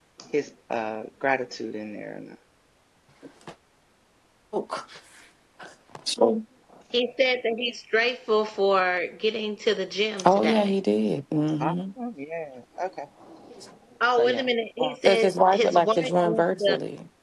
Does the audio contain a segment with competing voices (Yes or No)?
Yes